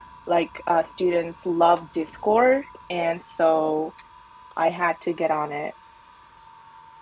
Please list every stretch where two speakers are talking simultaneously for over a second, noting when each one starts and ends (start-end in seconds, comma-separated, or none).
none